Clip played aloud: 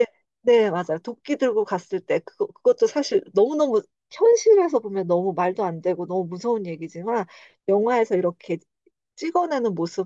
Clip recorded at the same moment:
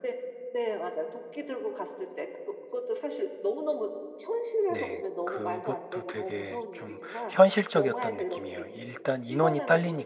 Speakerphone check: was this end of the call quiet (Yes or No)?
No